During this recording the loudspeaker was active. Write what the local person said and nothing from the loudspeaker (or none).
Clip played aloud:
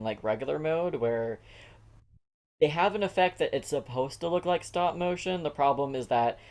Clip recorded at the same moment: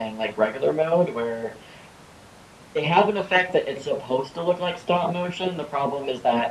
none